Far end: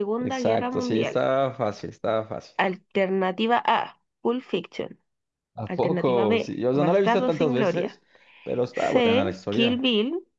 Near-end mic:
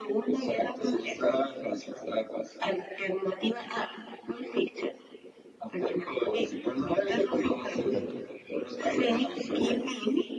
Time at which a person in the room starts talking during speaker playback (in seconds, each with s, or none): 7.7 s